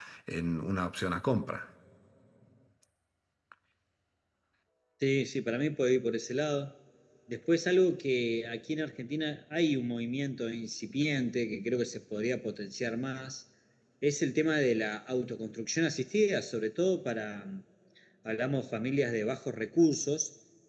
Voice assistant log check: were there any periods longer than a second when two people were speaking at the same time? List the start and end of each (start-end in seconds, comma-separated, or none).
none